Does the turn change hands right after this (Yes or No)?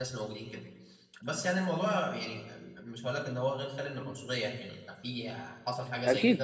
Yes